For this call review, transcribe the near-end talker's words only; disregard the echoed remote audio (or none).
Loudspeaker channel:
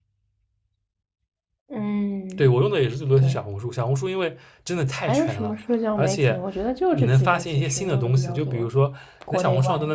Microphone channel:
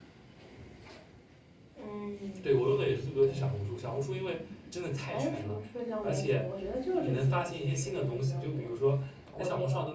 none